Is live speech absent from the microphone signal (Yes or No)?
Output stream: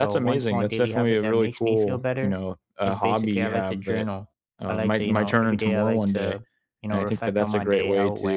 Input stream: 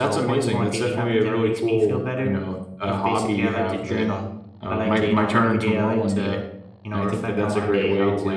Yes